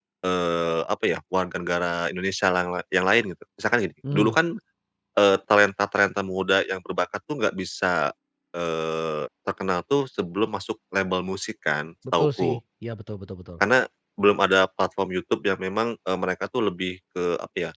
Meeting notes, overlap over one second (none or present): none